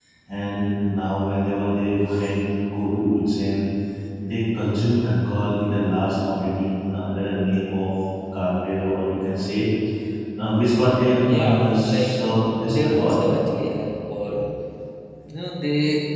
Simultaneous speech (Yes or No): Yes